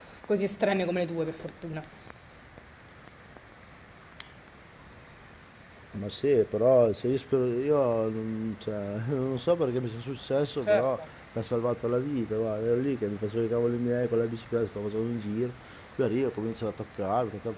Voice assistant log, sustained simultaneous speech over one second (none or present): none